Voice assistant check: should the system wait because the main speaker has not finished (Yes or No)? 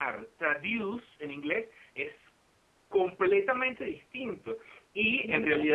Yes